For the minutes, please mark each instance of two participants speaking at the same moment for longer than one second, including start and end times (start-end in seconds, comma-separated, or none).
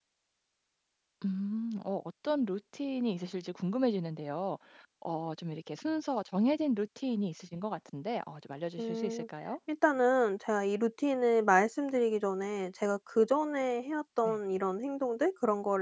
none